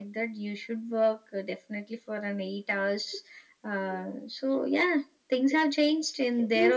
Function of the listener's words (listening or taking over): taking over